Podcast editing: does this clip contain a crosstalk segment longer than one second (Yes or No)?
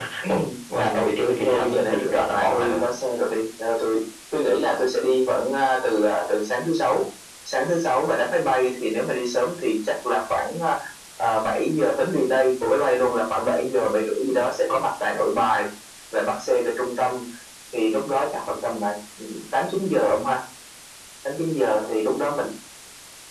Yes